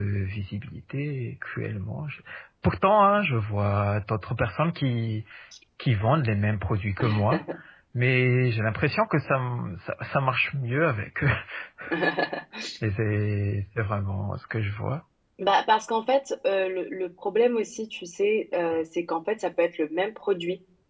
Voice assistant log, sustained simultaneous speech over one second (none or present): none